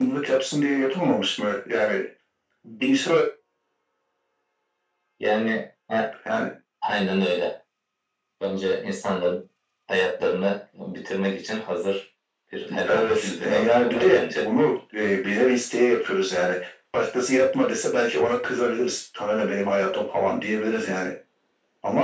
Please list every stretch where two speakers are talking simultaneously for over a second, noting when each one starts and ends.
12.9-14.5

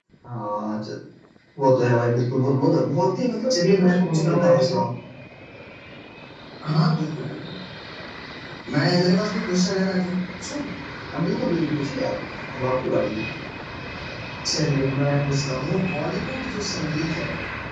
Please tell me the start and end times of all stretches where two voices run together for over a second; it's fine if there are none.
3.5-4.8

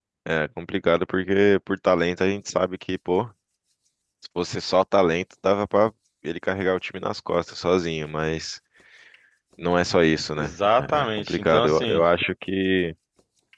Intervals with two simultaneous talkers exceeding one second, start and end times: 10.4-12.0

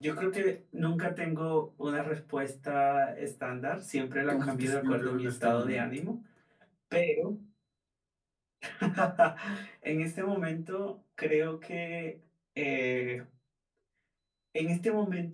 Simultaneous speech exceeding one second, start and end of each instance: 4.3-5.9

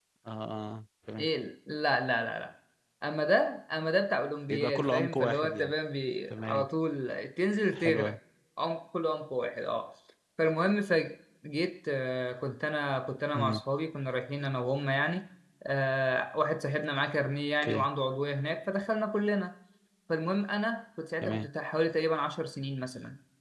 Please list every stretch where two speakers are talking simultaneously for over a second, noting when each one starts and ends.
4.5-5.7

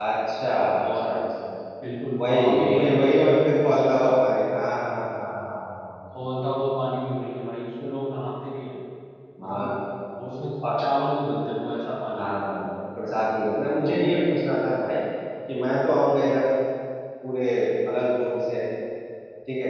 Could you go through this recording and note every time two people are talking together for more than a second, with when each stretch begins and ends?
2.2-4.2

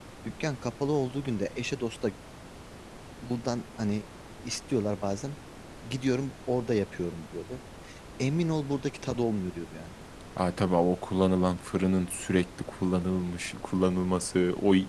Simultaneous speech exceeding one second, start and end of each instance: none

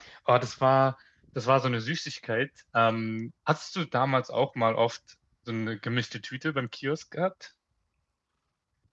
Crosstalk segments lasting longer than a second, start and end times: none

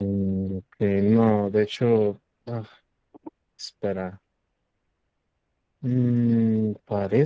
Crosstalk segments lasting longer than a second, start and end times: none

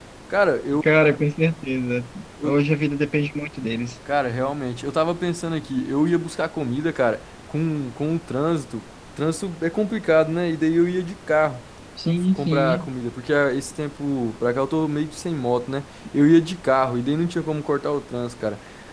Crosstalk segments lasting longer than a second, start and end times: none

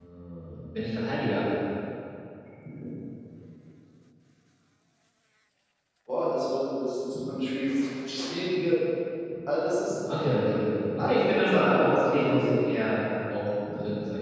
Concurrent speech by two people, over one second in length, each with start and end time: 11.0-12.6

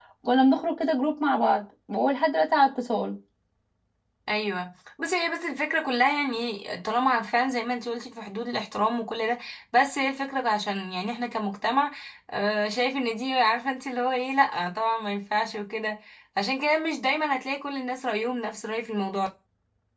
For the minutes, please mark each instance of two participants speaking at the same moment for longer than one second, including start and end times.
none

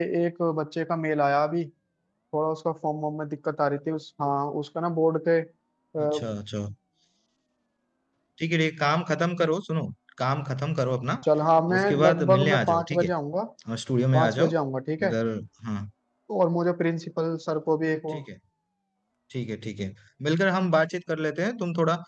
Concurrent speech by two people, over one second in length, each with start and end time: 11.8-13.1

